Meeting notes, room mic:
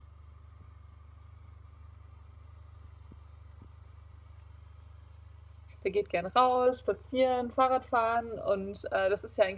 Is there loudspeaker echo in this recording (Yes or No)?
No